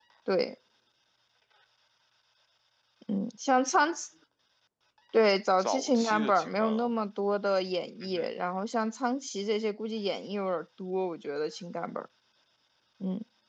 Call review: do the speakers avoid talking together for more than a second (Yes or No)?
No